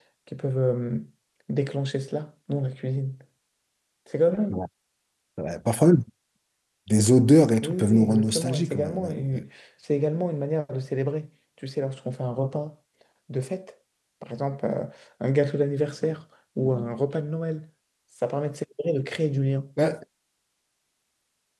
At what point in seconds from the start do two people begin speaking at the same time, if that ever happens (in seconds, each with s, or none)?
7.6 s